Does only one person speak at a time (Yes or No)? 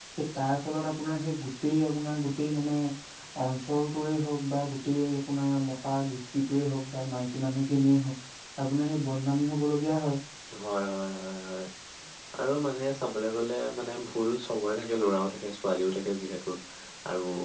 Yes